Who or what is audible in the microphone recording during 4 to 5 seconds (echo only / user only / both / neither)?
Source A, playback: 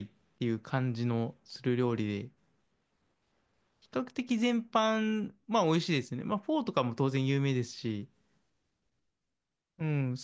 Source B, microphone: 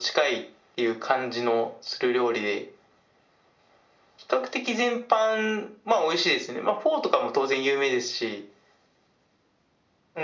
echo only